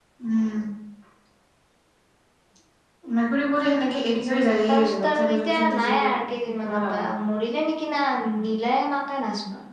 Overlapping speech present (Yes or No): Yes